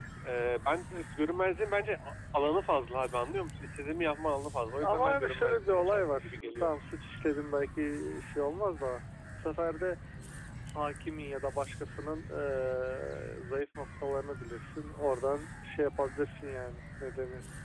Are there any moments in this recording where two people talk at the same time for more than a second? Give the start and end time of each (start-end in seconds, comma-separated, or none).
4.8-6.7